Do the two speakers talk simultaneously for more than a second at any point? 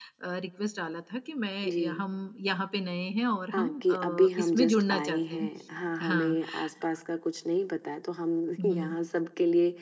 Yes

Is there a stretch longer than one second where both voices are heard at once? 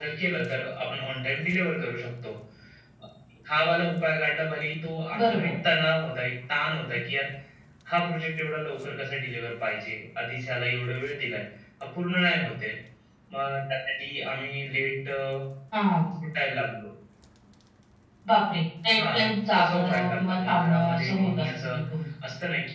Yes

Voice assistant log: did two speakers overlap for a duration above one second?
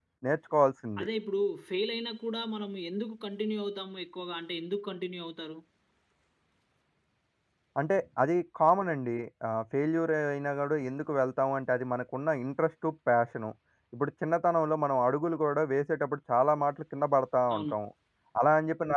No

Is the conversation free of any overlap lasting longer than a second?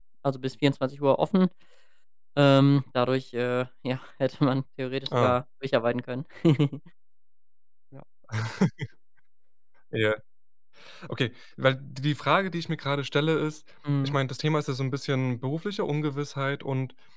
Yes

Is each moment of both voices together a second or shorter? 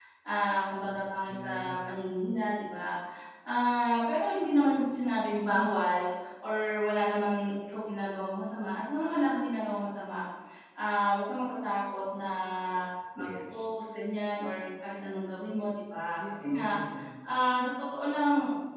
Yes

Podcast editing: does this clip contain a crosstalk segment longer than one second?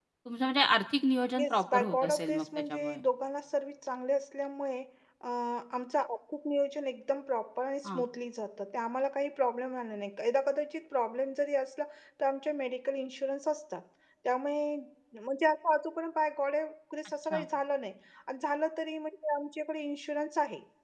Yes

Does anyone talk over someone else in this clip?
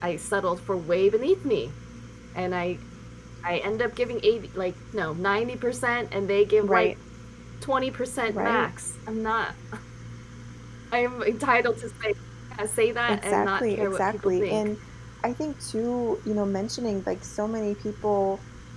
Yes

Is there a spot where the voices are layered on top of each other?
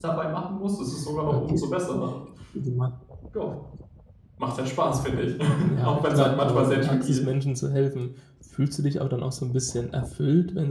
Yes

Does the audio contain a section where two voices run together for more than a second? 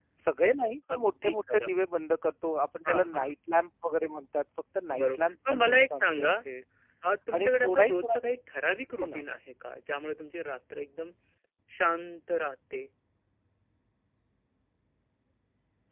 Yes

